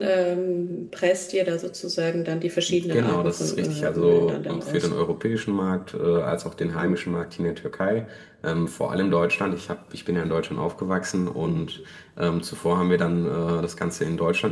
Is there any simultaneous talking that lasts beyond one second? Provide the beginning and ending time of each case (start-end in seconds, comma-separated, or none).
2.9-4.9